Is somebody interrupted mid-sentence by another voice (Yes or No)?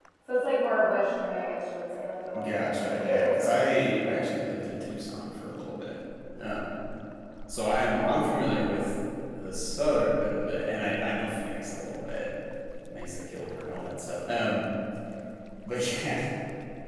Yes